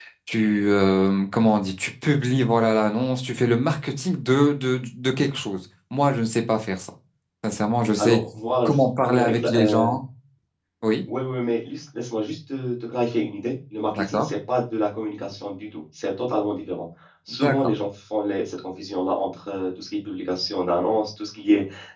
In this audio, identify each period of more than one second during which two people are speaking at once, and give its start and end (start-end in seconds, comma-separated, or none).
8.7-10.0